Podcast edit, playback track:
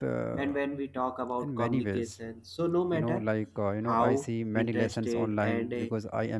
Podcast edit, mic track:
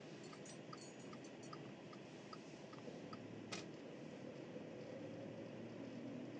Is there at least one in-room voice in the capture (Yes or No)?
No